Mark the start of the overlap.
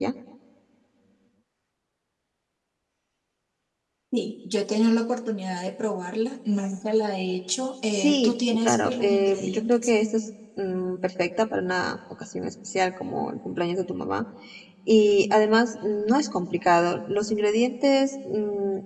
7.9 s

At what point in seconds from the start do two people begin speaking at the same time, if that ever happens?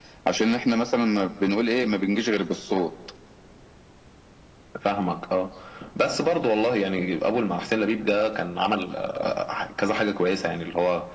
none

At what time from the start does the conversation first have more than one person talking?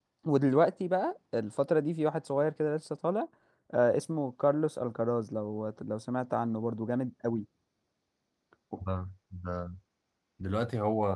none

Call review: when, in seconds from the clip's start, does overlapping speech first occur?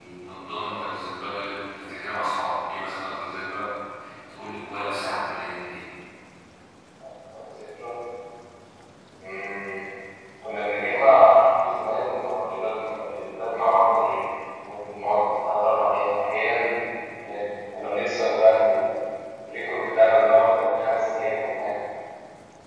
none

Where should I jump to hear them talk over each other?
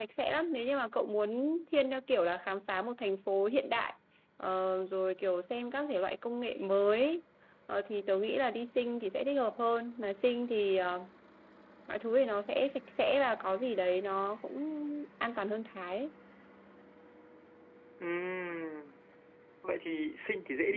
none

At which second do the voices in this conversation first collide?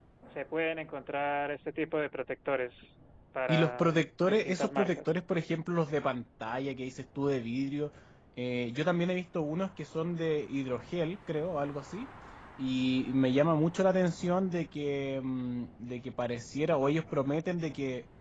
3.5 s

